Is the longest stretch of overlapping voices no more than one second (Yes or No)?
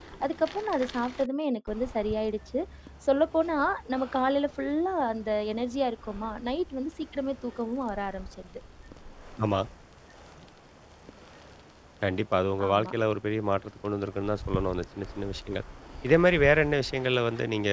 Yes